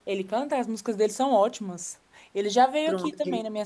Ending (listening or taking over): listening